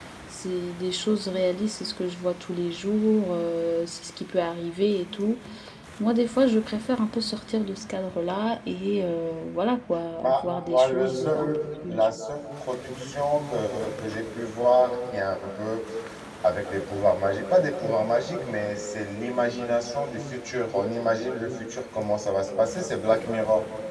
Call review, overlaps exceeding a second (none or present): present